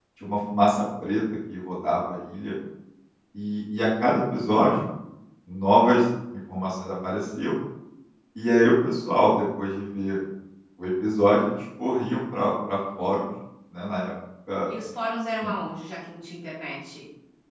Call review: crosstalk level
none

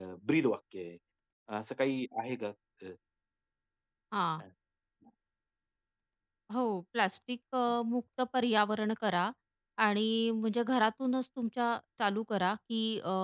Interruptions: none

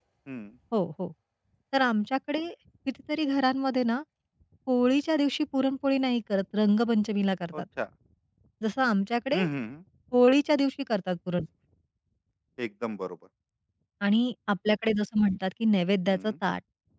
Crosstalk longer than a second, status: none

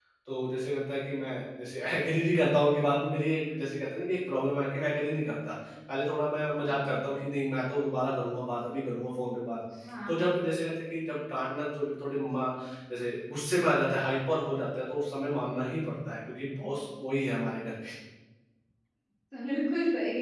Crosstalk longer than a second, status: none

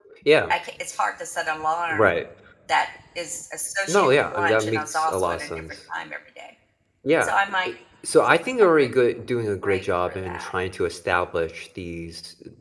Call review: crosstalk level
present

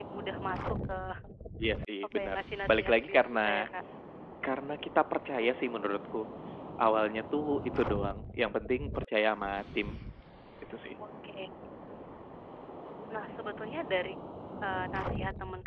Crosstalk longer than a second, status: present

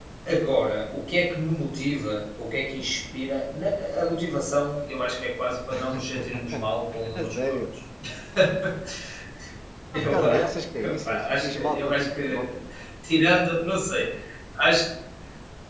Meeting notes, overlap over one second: present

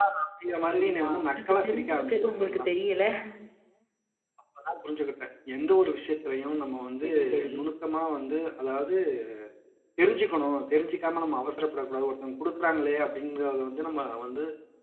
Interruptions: present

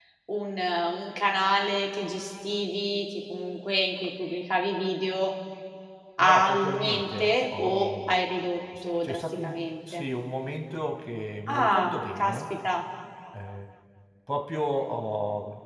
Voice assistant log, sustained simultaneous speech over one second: present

